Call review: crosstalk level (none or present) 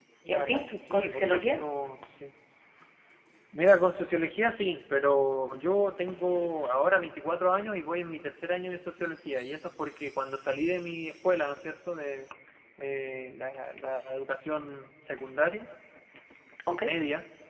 present